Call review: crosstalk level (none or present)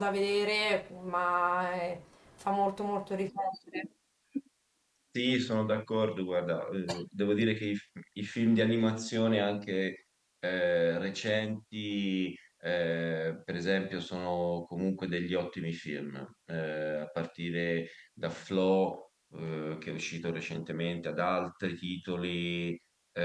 none